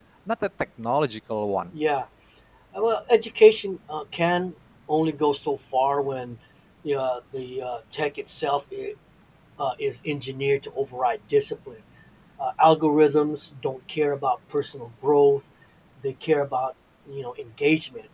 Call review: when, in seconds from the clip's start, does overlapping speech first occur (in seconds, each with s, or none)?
none